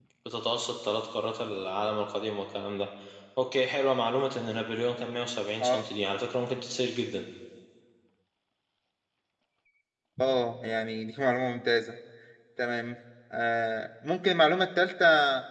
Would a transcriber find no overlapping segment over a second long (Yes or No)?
Yes